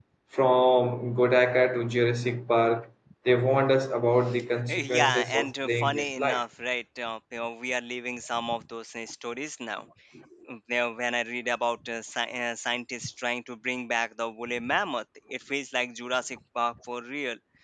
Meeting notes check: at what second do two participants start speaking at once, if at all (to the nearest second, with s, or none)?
5 s